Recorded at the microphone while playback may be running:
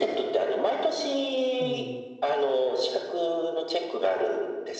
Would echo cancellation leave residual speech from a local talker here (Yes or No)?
Yes